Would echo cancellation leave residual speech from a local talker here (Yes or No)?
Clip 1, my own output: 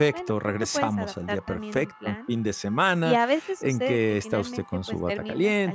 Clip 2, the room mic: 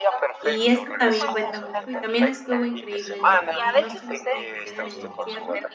Yes